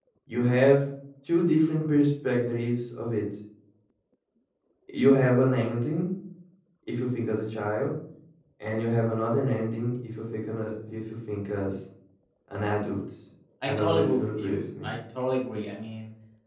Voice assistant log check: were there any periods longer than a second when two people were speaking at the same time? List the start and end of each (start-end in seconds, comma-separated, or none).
13.6-14.9